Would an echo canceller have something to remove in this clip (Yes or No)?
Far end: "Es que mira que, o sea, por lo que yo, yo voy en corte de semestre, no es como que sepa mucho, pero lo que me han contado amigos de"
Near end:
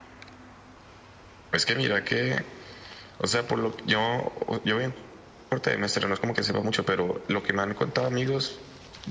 Yes